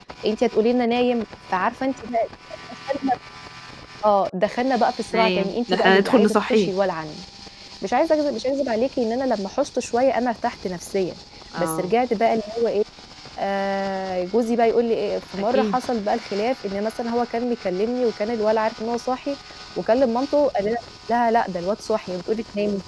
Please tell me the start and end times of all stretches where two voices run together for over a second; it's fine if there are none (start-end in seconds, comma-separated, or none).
5.1-6.7